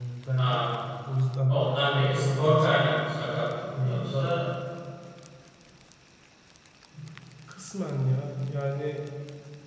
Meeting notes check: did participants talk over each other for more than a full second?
Yes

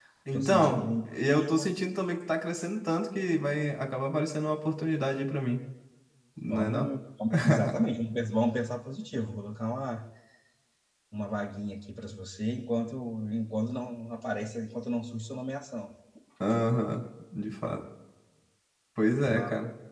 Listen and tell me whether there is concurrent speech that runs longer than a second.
Yes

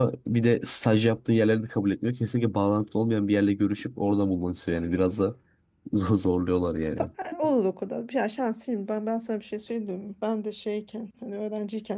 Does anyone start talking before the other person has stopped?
No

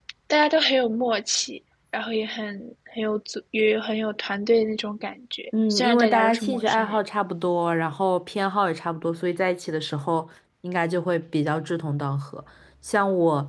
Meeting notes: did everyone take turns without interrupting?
No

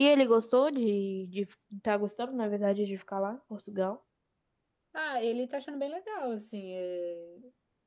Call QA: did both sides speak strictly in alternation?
Yes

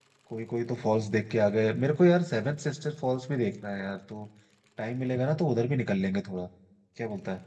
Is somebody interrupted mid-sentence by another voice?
No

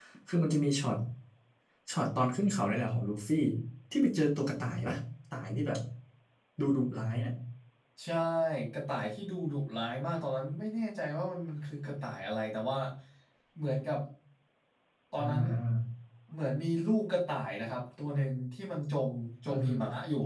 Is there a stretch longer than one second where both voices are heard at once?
No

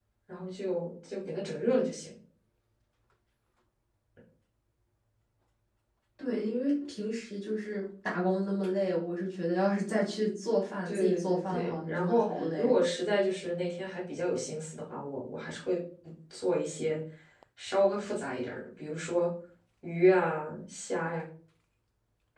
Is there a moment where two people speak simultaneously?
Yes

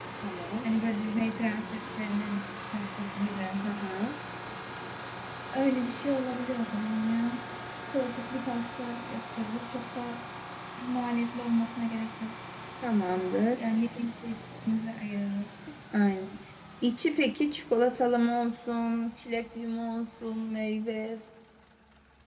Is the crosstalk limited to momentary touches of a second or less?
Yes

